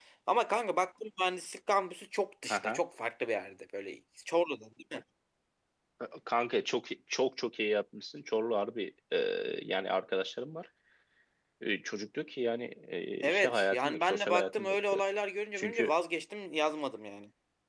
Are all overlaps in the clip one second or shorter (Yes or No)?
No